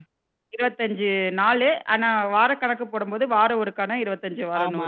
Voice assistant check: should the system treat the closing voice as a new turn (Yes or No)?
Yes